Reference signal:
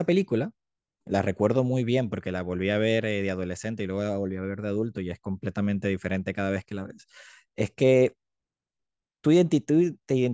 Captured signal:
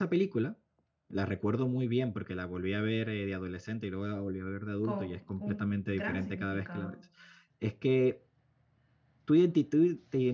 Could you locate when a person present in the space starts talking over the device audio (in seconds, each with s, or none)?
4.8 s